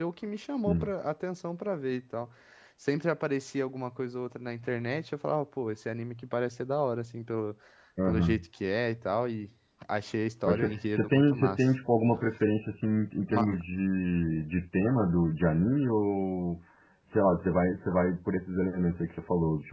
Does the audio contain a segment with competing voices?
Yes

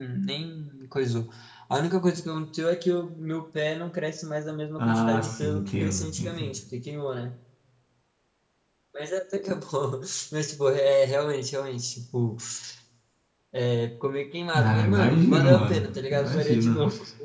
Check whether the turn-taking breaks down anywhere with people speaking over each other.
Yes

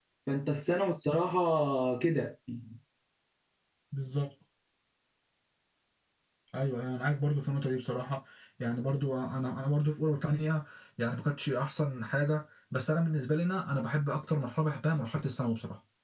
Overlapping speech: No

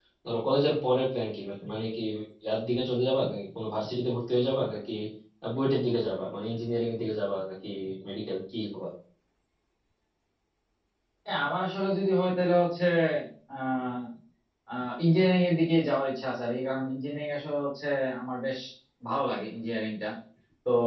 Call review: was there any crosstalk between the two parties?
No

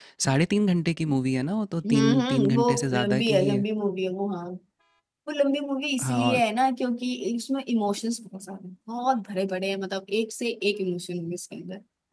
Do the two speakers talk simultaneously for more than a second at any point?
Yes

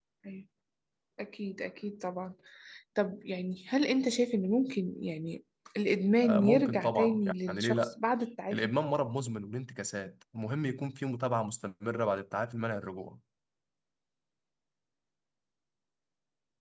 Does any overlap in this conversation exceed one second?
Yes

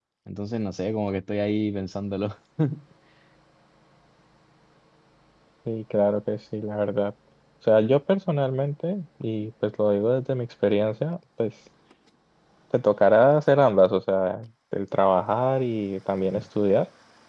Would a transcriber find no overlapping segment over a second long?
Yes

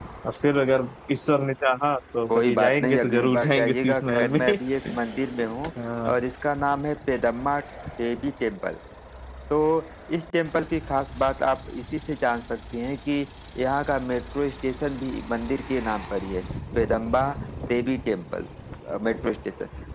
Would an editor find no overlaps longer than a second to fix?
No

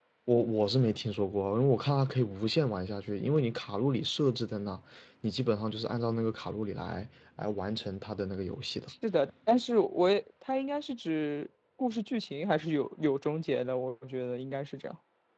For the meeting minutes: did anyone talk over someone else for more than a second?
No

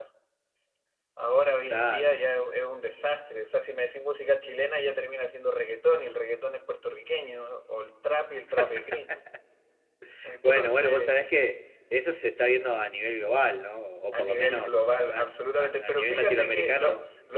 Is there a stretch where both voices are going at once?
Yes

